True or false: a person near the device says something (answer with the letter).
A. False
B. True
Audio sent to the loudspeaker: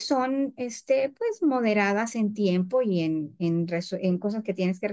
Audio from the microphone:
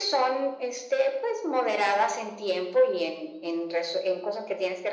A